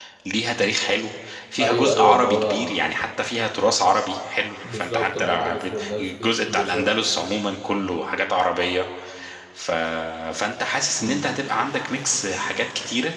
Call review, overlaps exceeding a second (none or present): present